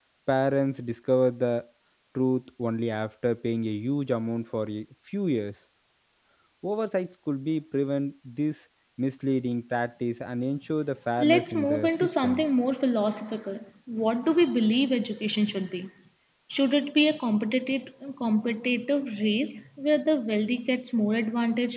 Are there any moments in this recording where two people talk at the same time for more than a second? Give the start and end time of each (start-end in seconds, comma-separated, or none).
11.2-12.4